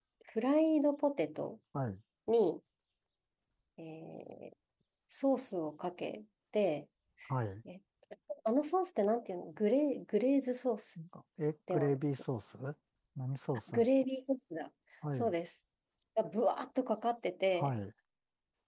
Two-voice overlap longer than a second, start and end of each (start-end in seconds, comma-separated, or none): none